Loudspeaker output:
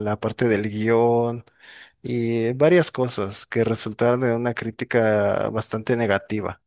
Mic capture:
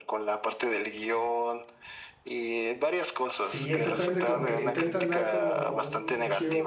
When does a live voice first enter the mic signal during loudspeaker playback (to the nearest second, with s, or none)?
3 s